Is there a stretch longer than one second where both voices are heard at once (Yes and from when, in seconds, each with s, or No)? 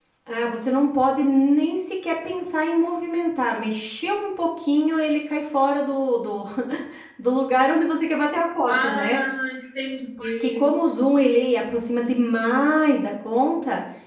No